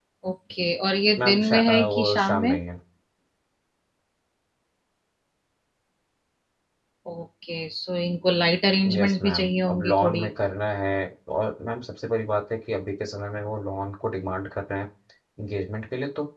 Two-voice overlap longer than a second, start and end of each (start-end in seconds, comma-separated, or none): 1.2-2.6, 9.0-10.2